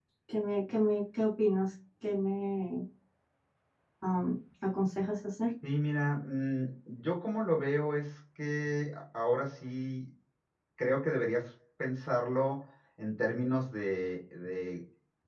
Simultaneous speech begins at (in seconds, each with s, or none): none